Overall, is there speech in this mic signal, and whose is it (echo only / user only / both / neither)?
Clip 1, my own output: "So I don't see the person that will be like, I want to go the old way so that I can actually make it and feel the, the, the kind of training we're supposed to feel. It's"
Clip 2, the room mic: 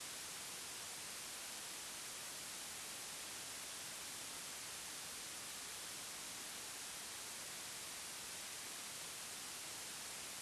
neither